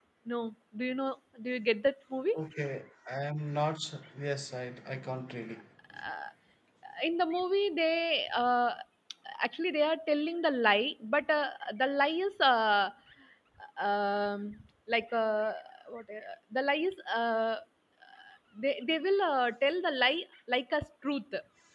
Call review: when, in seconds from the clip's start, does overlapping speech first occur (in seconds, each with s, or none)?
none